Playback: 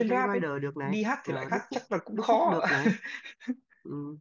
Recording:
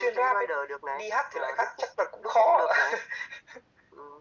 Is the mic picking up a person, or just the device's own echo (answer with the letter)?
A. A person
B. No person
B